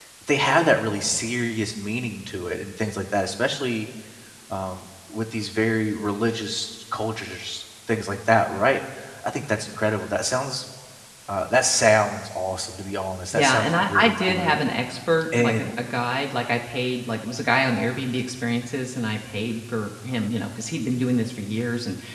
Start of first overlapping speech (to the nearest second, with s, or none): 13 s